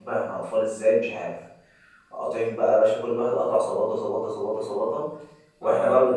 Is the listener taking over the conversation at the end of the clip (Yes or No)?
No